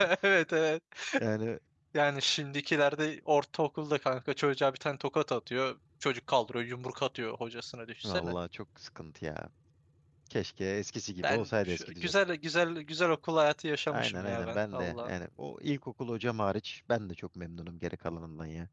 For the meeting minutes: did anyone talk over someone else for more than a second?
Yes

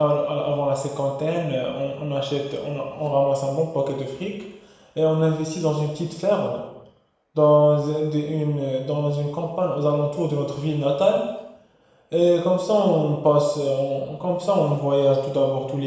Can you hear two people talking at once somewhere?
No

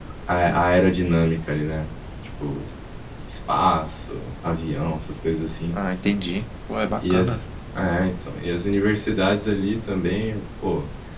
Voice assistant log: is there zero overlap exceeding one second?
Yes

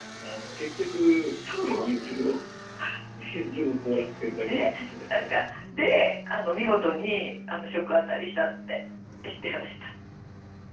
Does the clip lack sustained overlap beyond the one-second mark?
Yes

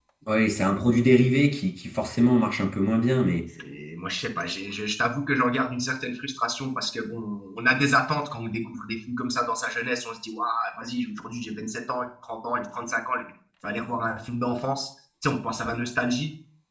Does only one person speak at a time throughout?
Yes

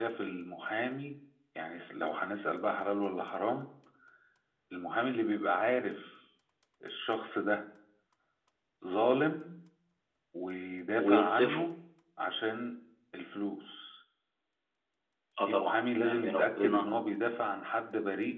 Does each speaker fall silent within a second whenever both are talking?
No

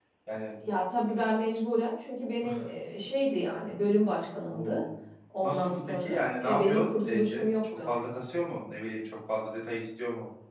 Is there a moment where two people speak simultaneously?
Yes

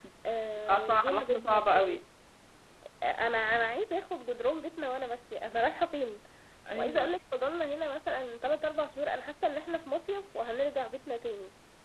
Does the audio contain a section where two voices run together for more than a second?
Yes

